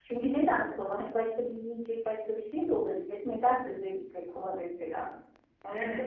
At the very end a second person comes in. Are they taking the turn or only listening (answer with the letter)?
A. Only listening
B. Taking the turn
B